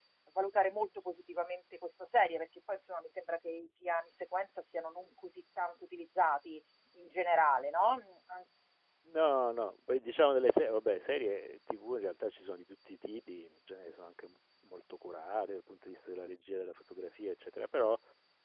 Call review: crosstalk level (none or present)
none